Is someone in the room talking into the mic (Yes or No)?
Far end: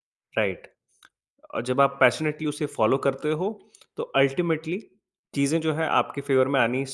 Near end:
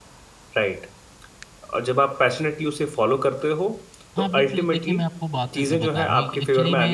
Yes